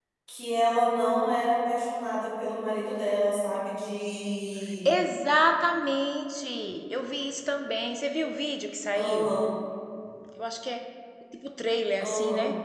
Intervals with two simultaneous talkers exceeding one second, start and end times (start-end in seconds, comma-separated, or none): none